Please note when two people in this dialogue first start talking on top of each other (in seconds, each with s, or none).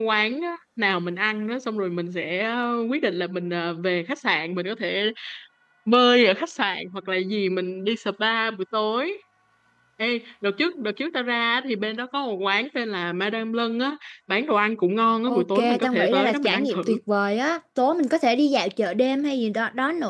15.3 s